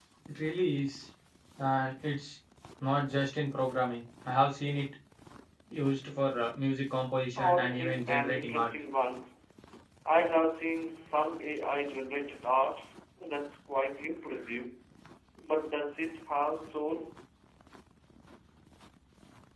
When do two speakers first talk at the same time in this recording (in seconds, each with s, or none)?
7.4 s